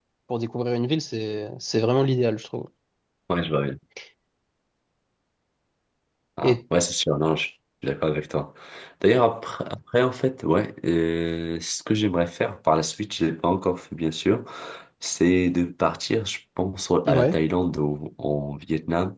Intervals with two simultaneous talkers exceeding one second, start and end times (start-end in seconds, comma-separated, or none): none